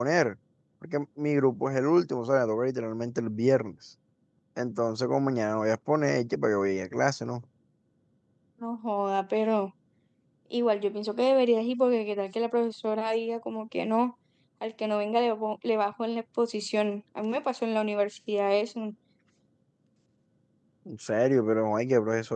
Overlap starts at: none

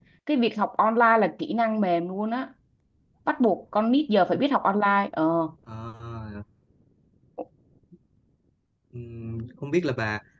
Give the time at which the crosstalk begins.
none

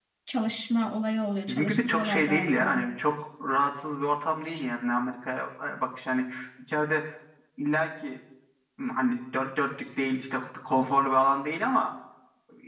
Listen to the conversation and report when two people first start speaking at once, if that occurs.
1 s

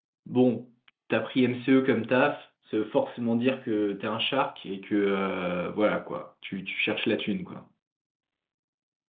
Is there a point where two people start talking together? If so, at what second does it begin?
none

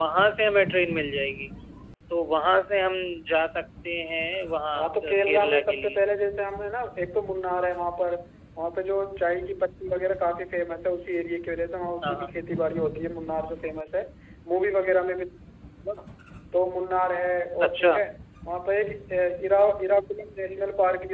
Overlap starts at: 5 s

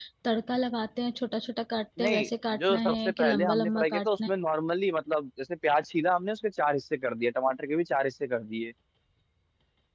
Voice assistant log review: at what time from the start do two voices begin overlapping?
2 s

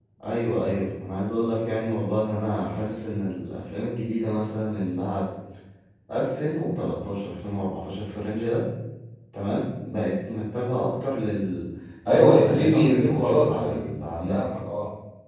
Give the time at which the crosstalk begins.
12 s

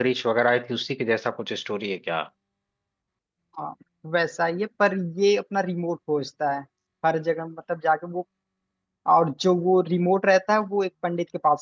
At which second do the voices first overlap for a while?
none

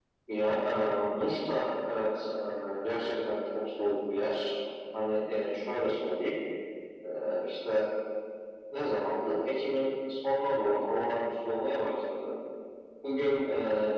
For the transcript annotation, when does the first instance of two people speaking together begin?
none

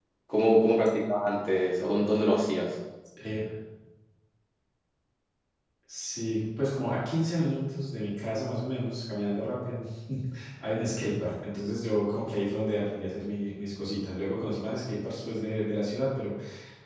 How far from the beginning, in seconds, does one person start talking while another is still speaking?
none

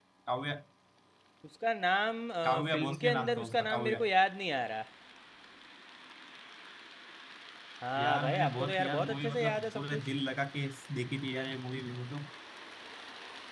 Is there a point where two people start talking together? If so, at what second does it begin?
2 s

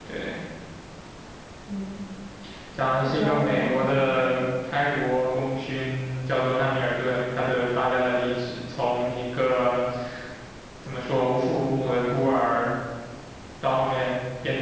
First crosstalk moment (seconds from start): 3 s

